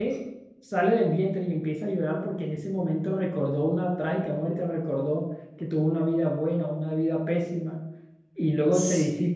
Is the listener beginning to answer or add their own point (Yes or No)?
No